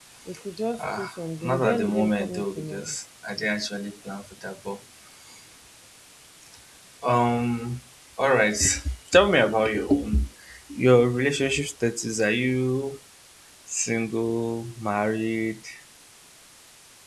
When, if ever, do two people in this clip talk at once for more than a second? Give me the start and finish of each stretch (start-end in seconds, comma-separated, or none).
1.5-3.0